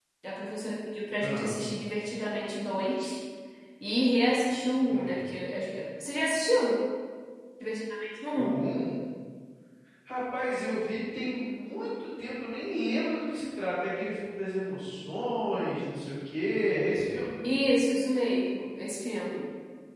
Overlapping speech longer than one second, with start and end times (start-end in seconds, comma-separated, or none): none